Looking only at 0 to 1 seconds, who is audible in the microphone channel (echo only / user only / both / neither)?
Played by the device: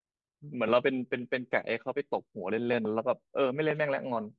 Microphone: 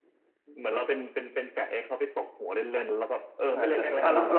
echo only